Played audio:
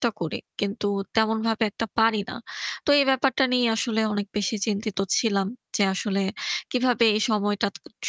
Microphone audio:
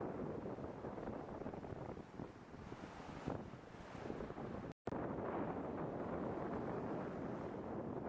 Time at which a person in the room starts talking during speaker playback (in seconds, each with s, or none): none